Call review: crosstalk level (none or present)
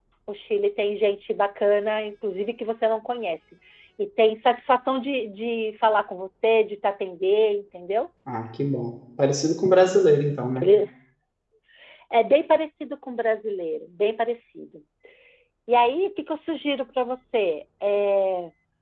none